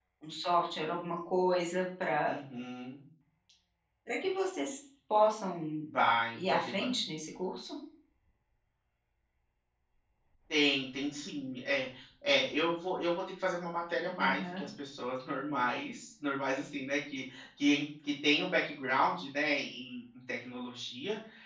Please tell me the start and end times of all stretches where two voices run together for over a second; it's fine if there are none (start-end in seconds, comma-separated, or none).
none